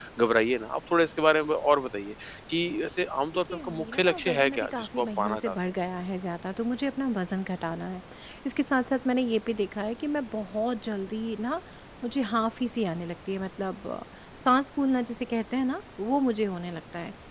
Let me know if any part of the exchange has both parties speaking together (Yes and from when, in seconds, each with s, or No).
Yes, from 3.5 s